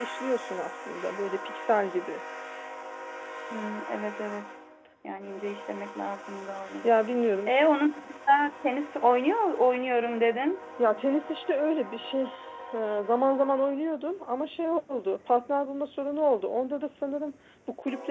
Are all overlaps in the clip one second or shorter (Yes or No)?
Yes